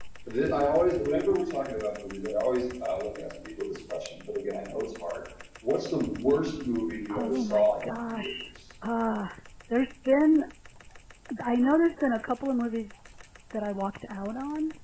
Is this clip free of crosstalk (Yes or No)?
No